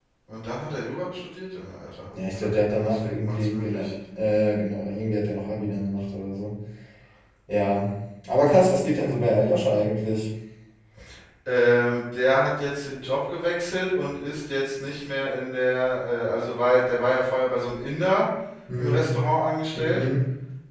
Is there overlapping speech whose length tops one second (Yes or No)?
Yes